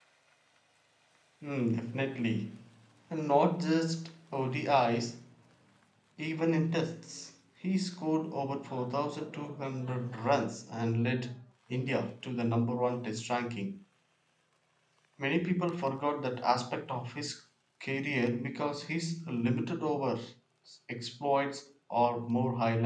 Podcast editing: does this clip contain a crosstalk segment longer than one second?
No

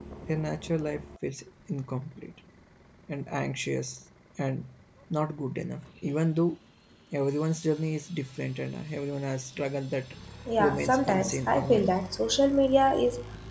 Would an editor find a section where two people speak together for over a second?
Yes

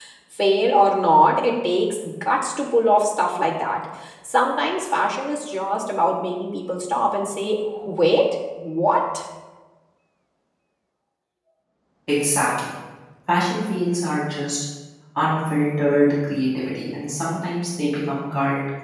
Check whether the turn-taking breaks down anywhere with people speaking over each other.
No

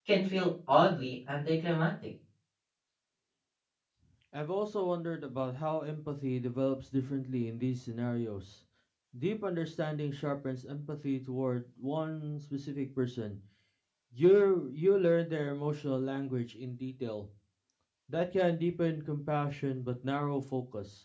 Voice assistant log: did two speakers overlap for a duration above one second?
No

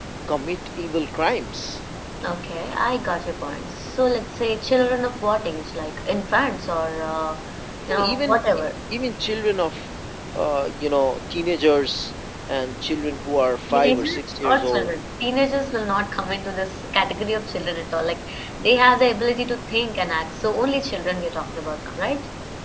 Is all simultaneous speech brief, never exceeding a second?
No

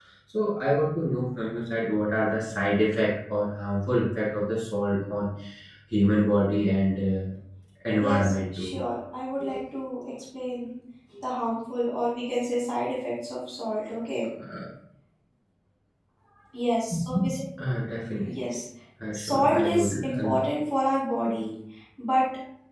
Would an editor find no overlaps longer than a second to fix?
No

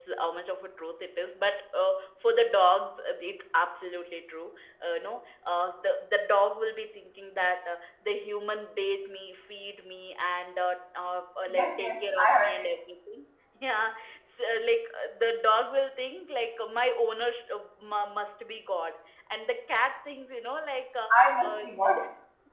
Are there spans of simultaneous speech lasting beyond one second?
Yes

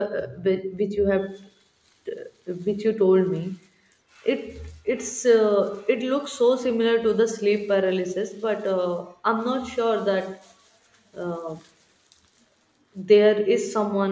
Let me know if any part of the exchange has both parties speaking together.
No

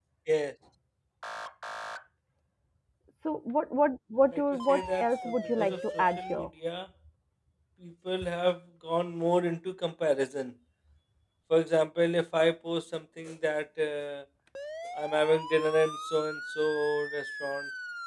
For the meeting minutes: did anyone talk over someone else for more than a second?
Yes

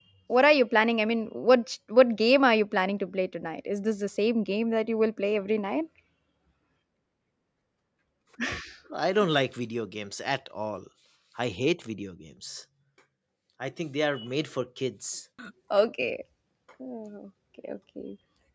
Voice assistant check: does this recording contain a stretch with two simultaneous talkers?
No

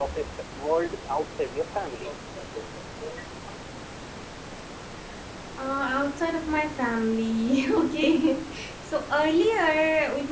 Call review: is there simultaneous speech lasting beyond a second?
No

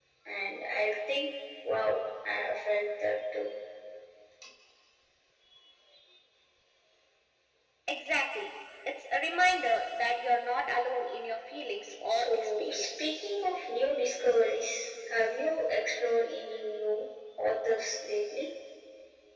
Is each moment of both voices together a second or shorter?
No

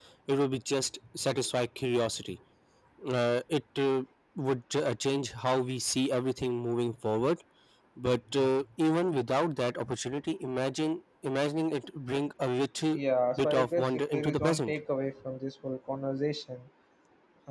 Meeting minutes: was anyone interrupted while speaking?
Yes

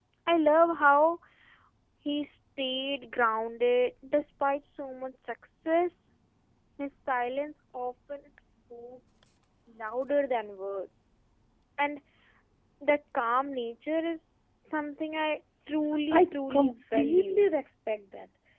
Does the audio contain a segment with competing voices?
Yes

